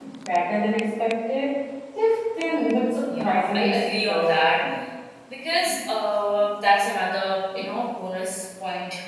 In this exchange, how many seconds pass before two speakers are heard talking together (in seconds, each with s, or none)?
3.1 s